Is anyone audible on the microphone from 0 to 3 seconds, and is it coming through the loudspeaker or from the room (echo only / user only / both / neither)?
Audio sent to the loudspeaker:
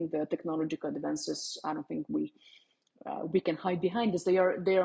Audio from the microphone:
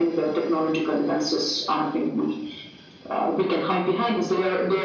echo only